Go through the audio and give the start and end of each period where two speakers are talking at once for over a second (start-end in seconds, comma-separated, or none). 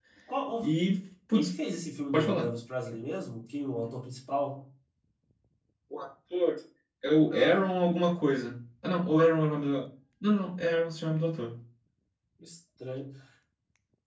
none